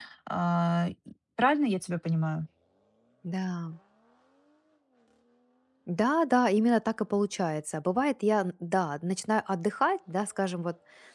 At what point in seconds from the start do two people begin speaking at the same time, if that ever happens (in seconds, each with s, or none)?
none